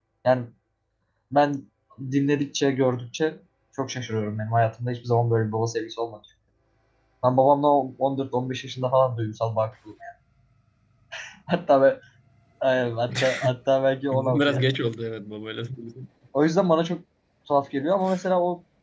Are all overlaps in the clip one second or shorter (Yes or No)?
Yes